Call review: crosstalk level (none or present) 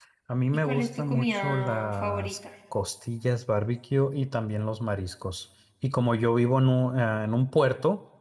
present